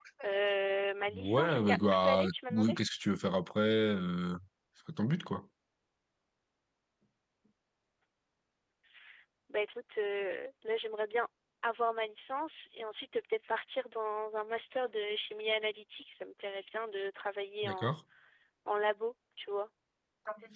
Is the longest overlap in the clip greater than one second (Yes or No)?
Yes